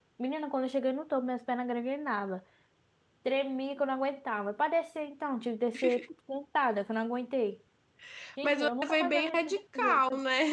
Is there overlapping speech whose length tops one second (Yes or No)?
Yes